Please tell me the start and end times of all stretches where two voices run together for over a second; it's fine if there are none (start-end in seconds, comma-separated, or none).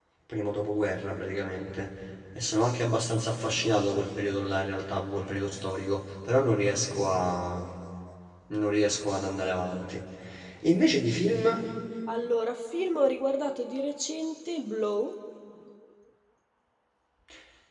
none